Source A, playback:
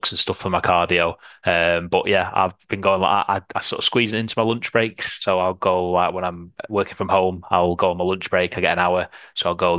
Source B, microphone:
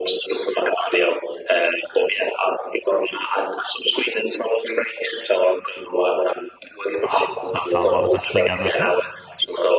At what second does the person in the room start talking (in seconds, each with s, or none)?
7.0 s